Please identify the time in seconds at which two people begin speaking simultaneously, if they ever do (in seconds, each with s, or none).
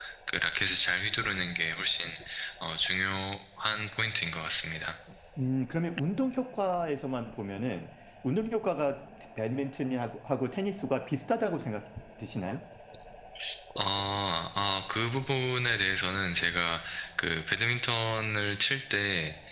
none